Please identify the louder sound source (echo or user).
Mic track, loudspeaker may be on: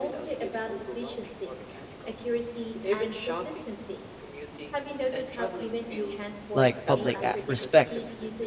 user